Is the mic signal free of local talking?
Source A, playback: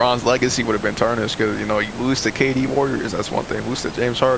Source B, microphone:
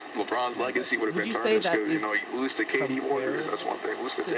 No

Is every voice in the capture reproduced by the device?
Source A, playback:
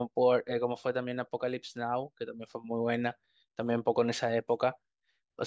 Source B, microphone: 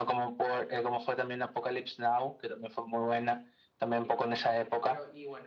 No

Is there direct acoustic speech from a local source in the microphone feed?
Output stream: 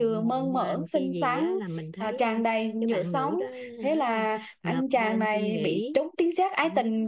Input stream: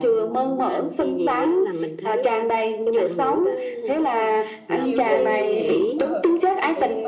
Yes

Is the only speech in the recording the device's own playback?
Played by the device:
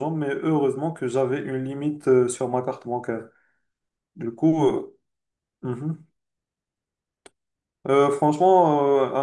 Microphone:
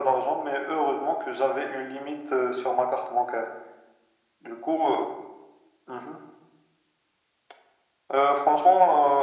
Yes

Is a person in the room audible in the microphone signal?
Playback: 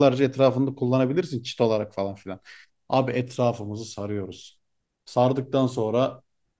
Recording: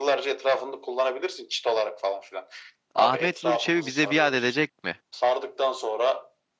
Yes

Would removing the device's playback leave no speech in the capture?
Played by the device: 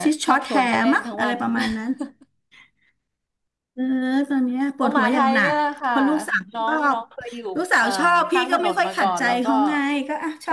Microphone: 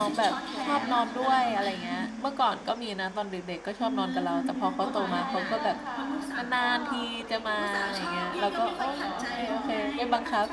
No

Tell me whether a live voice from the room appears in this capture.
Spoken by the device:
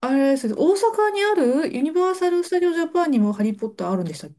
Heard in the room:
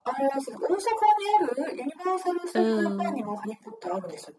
Yes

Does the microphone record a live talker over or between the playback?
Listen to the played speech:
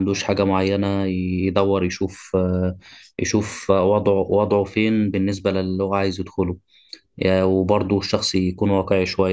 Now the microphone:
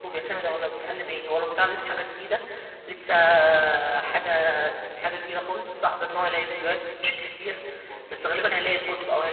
Yes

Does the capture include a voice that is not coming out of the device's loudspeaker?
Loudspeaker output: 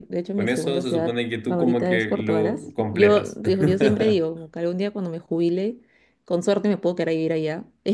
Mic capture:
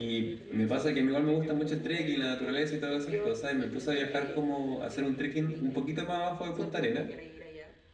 Yes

